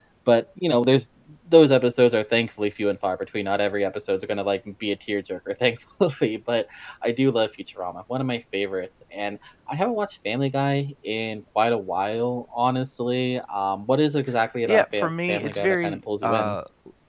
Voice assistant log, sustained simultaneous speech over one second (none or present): present